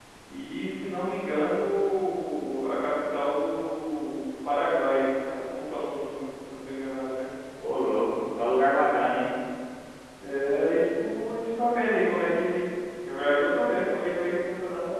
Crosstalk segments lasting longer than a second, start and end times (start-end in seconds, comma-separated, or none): none